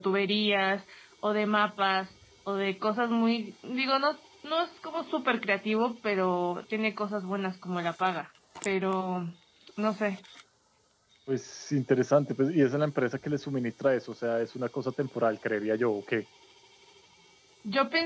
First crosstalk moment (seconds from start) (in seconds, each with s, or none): none